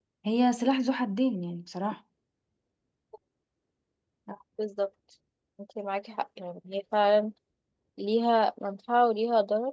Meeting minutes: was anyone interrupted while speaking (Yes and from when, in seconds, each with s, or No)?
No